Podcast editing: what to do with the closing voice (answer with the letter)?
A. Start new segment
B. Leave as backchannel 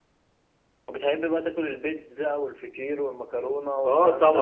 A